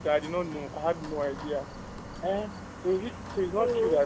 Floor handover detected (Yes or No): No